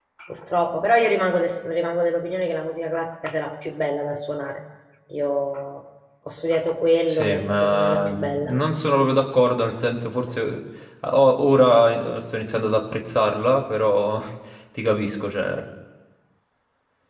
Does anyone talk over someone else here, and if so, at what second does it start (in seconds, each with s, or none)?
7.1 s